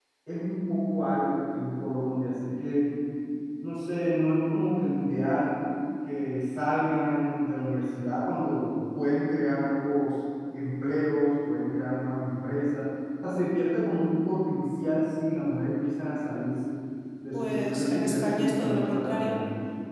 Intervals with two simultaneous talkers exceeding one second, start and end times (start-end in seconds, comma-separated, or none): 17.3-19.4